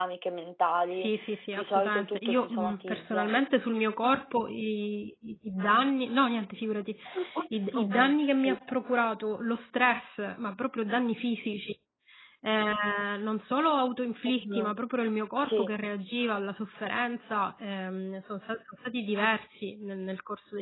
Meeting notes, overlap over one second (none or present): present